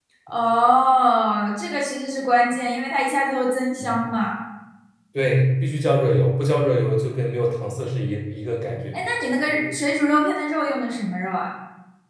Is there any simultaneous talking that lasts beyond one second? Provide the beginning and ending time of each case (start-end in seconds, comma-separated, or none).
none